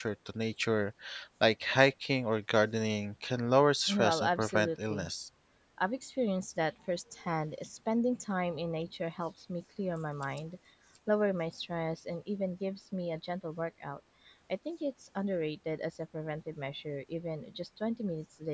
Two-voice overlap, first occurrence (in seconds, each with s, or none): 3.9 s